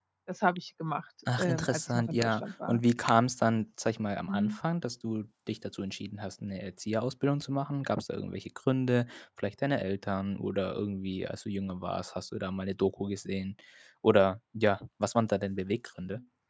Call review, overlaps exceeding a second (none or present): present